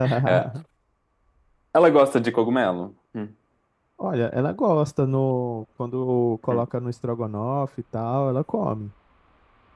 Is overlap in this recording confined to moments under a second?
Yes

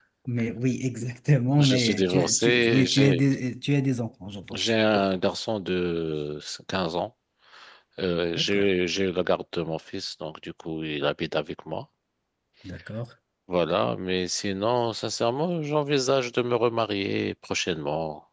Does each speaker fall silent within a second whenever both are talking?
No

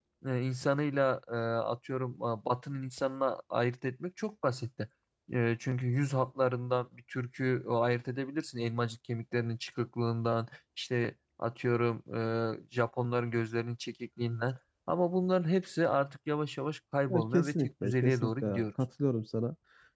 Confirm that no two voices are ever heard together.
No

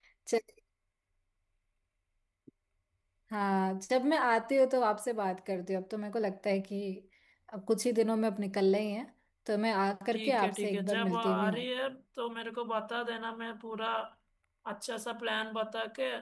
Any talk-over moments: Yes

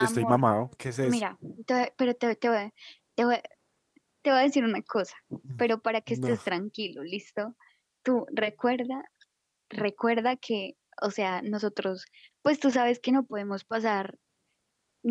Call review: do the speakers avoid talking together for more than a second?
Yes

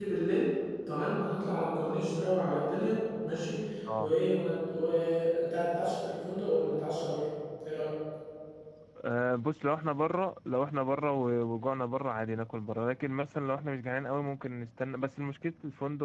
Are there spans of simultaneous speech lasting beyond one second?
No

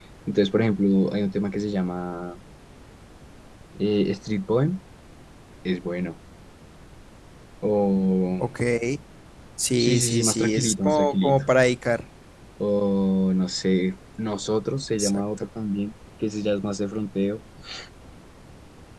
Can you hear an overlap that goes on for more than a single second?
Yes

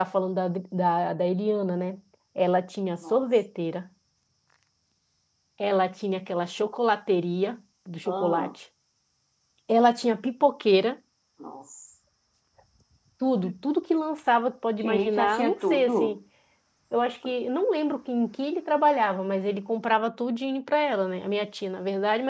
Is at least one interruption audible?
Yes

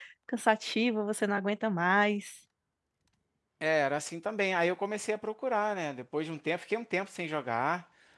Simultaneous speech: No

